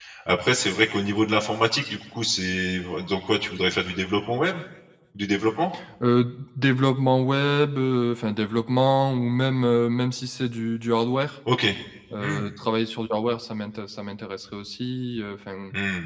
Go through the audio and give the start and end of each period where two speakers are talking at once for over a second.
none

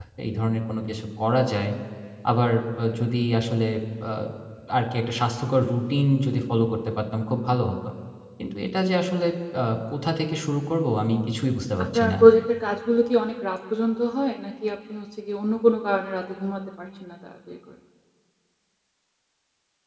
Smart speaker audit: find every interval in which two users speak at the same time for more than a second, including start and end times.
none

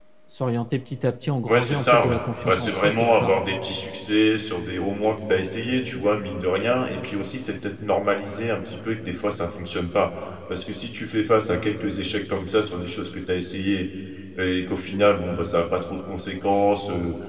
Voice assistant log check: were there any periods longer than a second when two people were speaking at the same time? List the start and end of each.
1.5-3.4

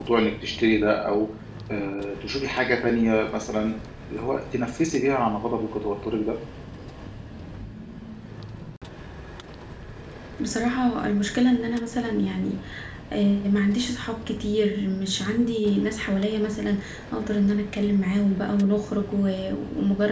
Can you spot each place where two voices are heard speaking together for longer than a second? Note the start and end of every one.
none

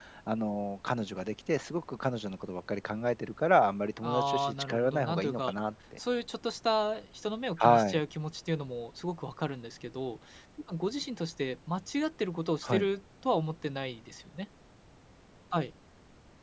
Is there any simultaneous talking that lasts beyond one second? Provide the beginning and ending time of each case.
4.0-5.5

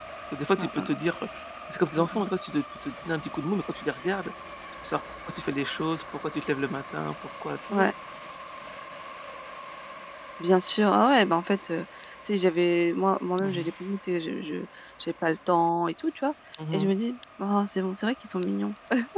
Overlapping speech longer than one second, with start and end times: none

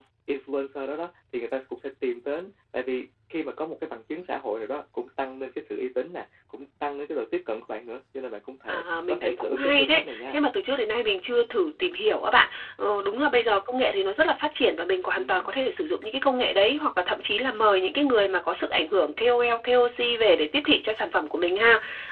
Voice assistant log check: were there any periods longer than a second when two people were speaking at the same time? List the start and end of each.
8.7-10.4

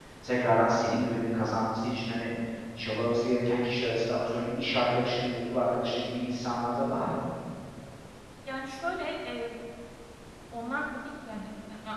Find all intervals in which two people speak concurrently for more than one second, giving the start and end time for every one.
none

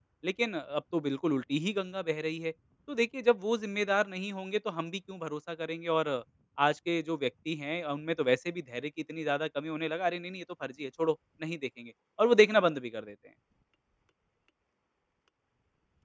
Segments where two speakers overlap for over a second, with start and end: none

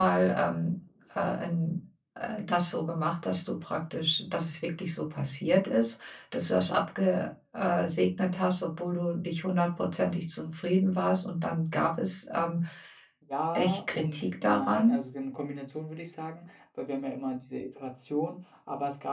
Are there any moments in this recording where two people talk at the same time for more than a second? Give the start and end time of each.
13.6-15.0

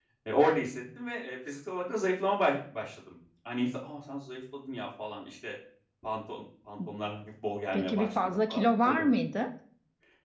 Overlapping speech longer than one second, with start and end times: 7.7-9.1

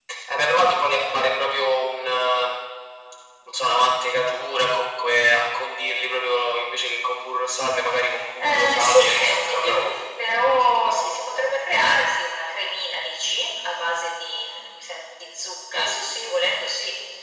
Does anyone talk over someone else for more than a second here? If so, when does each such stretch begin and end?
8.4-9.9

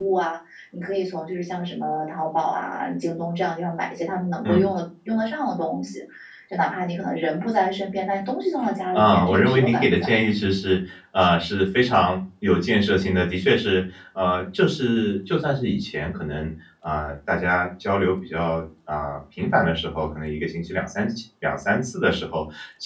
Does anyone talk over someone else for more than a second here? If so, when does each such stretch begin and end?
8.9-10.2

